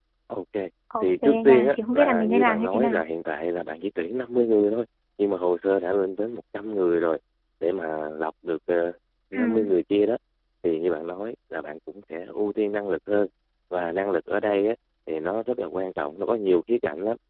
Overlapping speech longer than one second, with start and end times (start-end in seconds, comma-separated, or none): 1.0-3.0